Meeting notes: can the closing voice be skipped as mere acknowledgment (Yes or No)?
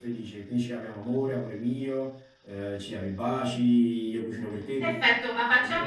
No